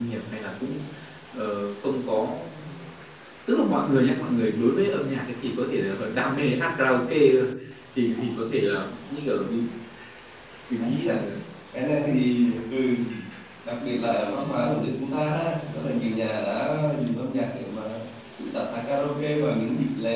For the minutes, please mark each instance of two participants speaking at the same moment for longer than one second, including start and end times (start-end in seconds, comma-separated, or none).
none